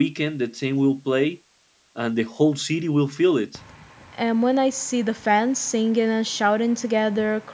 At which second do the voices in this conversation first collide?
none

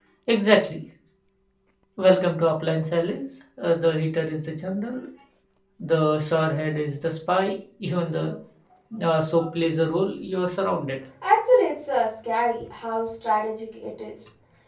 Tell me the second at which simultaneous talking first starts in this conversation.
none

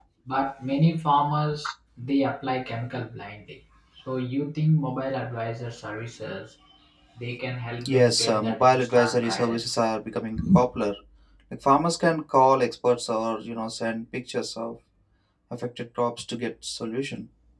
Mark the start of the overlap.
7.9 s

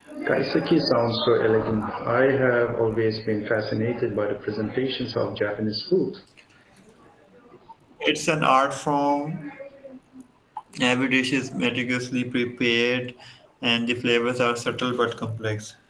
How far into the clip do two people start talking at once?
none

